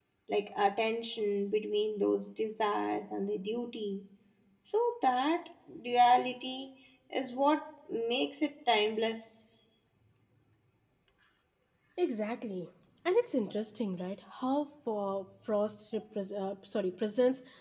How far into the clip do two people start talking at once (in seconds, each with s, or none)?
none